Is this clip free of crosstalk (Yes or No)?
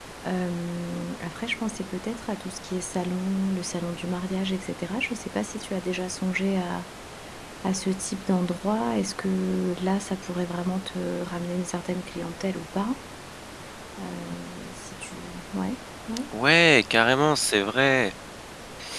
Yes